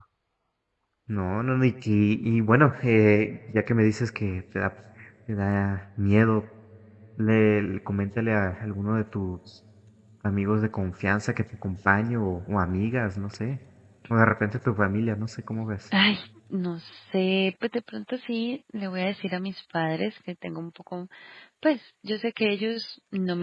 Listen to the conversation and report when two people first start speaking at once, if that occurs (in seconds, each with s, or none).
none